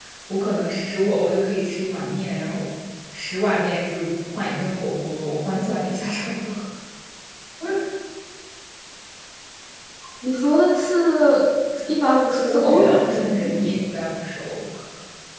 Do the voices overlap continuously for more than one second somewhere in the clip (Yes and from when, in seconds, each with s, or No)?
Yes, from 12.5 s